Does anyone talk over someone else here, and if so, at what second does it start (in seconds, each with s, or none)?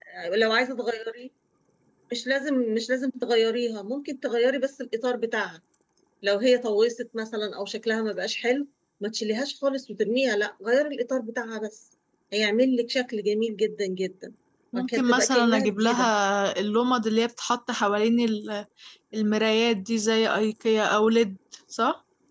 14.8 s